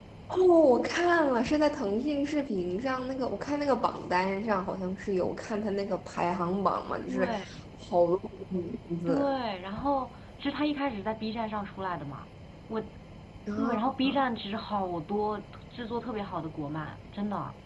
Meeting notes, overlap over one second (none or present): none